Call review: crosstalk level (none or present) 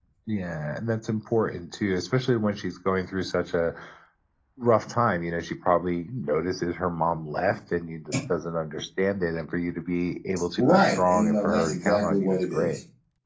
present